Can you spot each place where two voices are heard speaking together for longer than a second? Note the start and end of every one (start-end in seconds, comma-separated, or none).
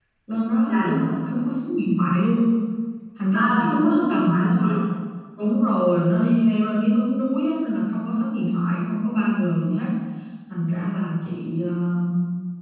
3.3-4.7